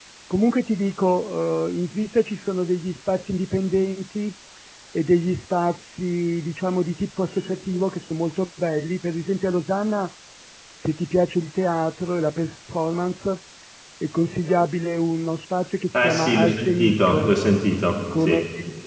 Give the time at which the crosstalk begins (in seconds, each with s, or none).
15.9 s